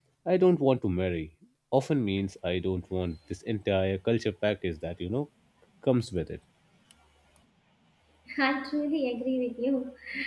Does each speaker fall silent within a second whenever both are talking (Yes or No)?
Yes